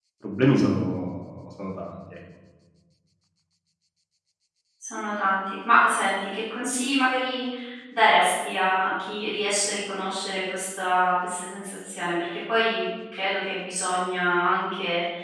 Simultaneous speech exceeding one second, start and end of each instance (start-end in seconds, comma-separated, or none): none